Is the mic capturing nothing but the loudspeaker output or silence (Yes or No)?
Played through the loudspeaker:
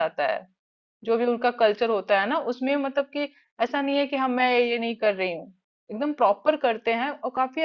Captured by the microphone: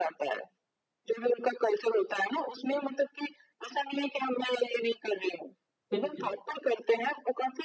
No